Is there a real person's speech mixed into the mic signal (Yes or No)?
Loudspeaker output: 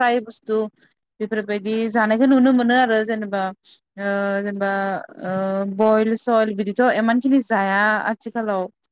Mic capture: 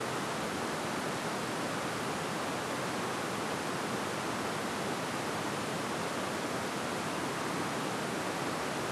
No